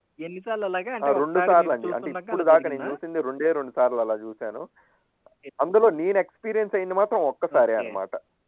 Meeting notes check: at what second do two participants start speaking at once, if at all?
1.1 s

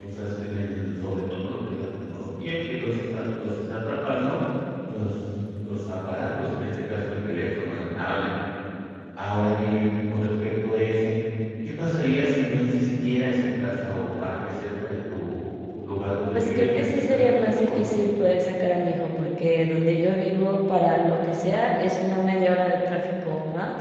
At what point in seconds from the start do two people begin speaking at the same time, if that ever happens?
16.3 s

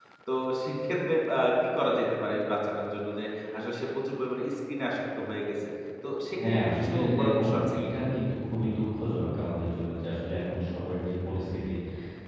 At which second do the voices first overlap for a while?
6.4 s

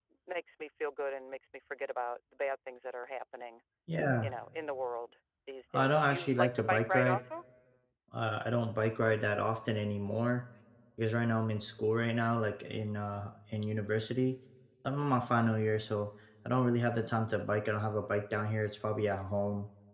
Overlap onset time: 5.7 s

